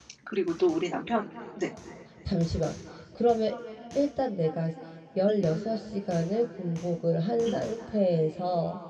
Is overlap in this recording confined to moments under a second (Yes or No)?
Yes